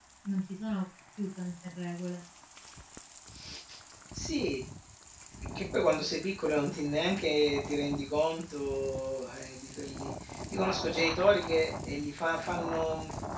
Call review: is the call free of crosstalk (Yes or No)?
Yes